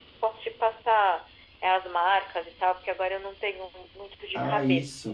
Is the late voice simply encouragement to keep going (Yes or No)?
No